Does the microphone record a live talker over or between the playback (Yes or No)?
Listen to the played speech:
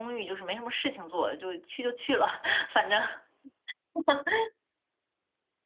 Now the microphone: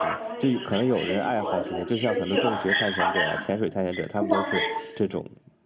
Yes